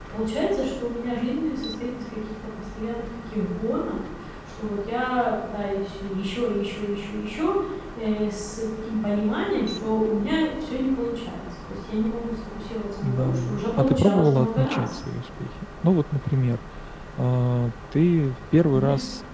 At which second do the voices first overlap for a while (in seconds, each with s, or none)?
13.0 s